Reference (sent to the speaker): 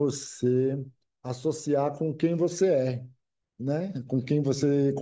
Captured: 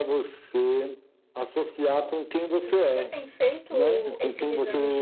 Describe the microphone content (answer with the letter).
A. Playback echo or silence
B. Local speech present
B